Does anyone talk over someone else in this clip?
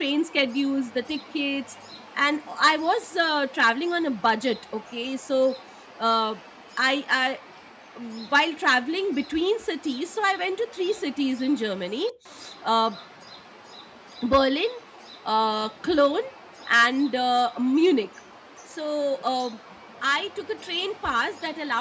No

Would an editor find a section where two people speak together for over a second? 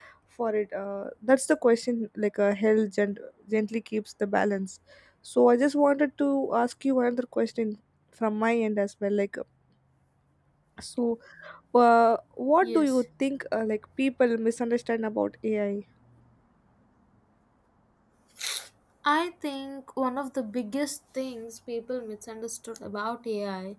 No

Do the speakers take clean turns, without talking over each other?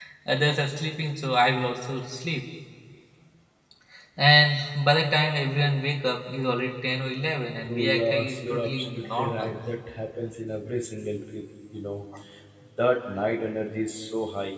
No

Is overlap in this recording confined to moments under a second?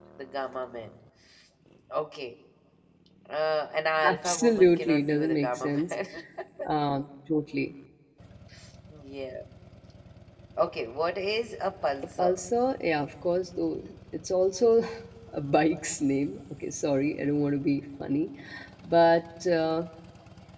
No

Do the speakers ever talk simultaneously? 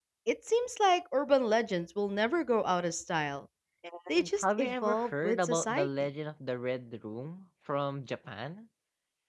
Yes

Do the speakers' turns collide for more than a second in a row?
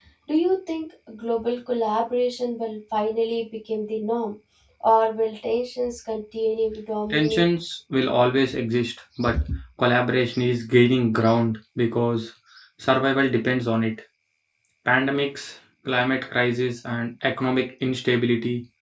No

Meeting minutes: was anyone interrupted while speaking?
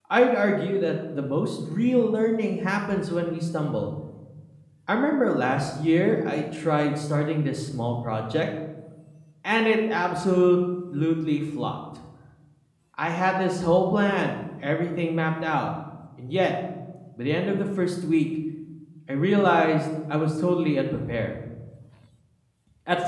No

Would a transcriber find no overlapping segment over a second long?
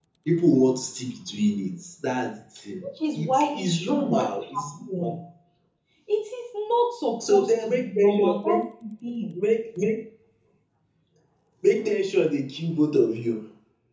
No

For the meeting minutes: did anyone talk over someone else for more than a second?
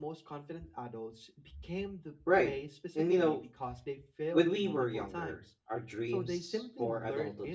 Yes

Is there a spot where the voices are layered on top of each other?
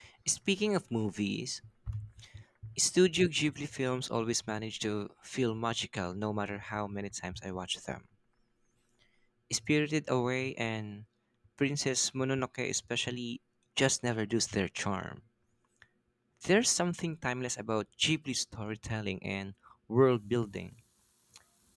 No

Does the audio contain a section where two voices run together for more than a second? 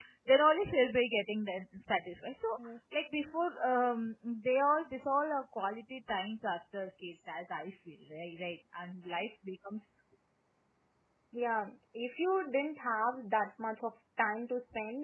No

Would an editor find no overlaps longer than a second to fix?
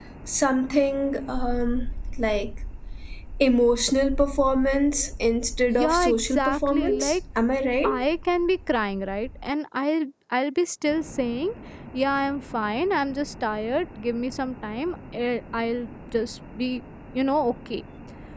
No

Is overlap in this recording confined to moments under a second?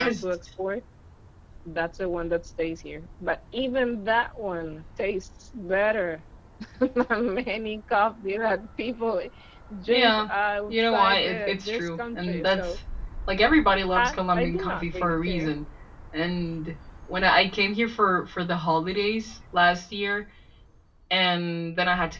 No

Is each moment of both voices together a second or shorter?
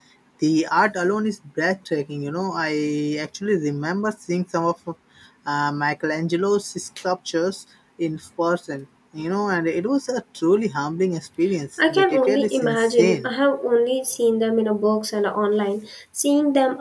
No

